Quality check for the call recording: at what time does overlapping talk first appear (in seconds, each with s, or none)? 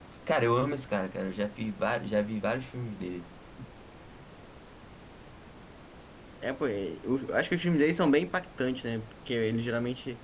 none